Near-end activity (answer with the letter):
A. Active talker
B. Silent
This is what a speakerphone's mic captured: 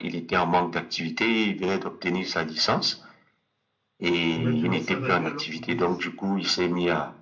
A